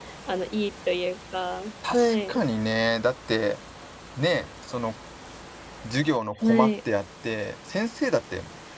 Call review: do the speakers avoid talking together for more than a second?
Yes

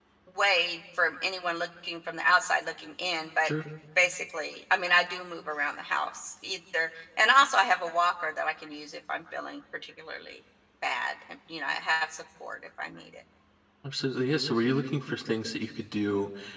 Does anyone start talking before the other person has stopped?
No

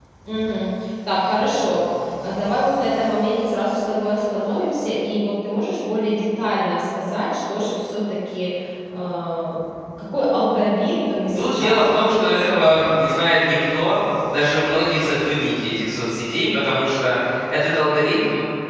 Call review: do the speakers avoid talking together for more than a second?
No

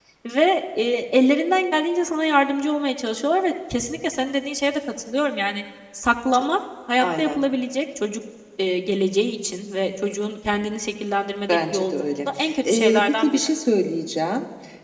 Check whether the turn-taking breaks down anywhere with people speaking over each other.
Yes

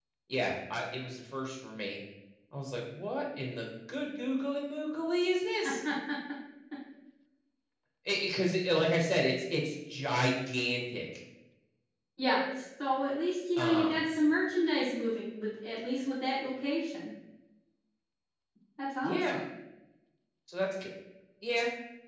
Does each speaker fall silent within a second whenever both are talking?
Yes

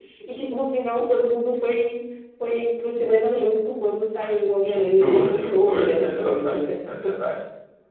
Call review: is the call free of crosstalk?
No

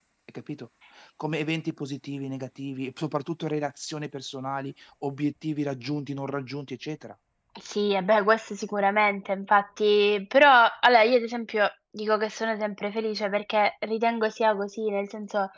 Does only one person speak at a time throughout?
Yes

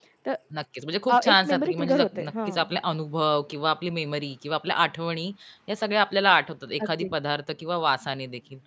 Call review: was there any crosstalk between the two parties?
Yes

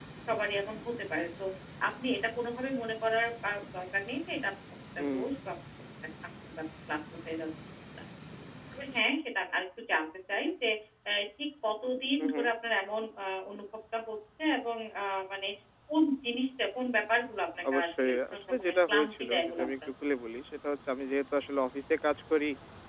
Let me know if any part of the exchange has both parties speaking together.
Yes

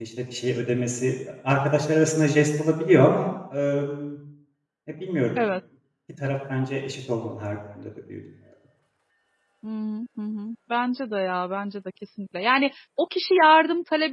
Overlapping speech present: No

